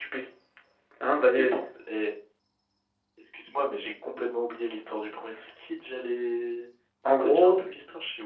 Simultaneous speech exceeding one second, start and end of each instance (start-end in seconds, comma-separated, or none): none